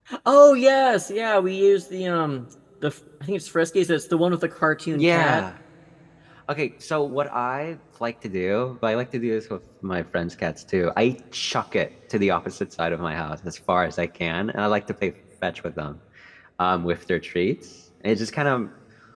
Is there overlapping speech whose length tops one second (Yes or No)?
No